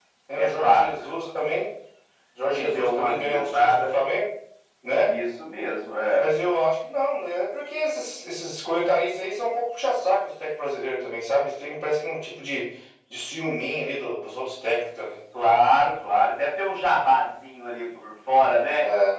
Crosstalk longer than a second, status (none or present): present